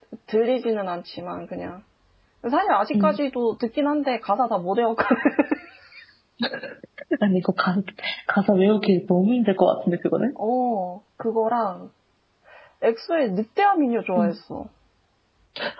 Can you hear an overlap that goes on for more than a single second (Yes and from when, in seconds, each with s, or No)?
No